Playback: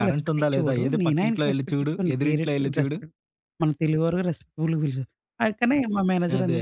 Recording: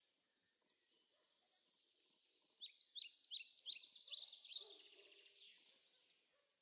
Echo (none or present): none